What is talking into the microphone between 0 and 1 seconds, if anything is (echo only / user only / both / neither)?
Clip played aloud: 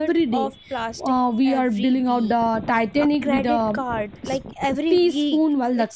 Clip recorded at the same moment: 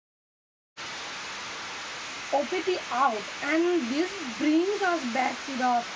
neither